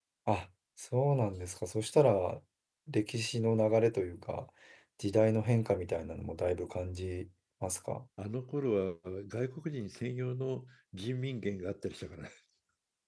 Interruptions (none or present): none